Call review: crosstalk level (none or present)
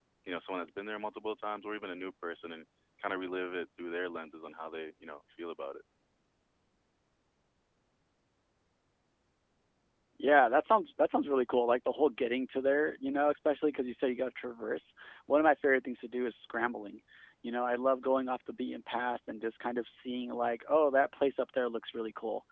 none